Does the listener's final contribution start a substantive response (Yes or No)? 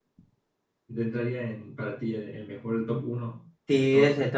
Yes